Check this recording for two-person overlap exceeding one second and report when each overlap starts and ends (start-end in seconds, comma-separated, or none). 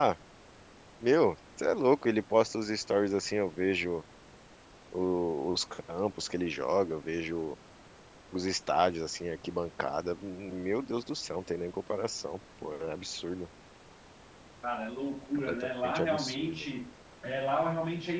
15.5-16.7